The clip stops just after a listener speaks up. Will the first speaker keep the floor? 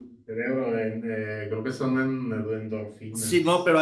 No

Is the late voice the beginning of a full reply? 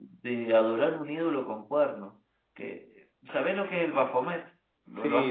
Yes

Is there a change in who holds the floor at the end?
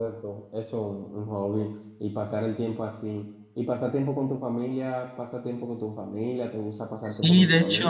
Yes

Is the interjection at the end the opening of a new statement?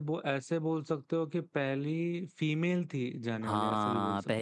Yes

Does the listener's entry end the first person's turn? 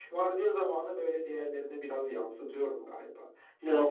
Yes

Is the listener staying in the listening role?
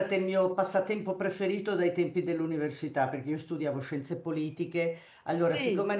Yes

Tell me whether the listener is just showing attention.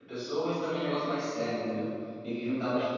No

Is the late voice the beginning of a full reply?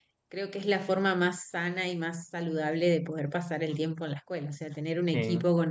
No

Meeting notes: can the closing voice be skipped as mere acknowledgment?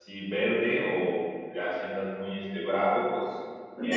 No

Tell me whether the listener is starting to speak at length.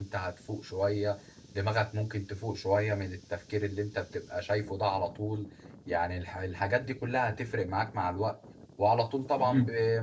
No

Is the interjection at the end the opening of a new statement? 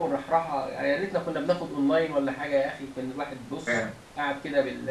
No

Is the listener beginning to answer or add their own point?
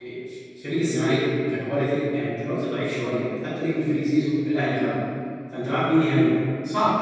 Yes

